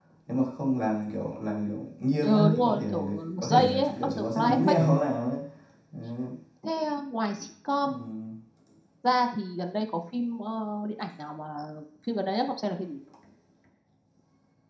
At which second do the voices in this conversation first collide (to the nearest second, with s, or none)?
2 s